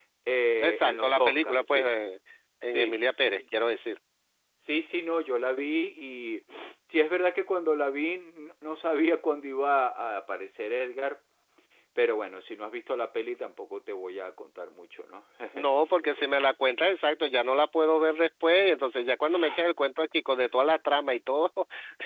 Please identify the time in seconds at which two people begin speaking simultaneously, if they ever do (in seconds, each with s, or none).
0.6 s